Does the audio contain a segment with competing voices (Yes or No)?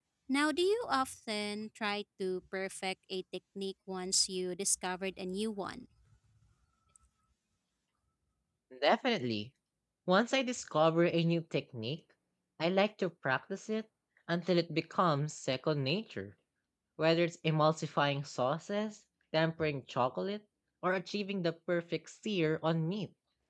No